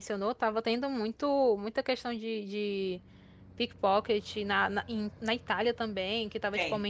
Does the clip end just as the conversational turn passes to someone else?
No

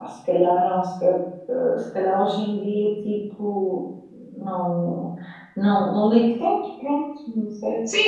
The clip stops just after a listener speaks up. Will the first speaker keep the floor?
No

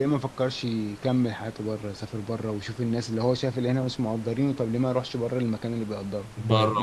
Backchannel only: No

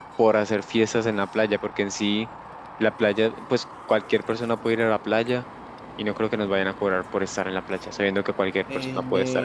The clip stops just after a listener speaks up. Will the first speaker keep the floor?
No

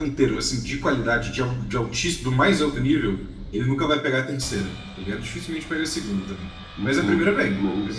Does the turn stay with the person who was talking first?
No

